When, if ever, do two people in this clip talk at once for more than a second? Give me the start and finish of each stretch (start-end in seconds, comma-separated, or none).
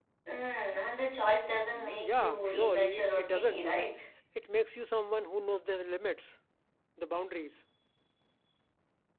1.7-3.9